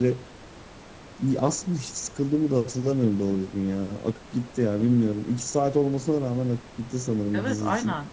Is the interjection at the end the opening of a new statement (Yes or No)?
Yes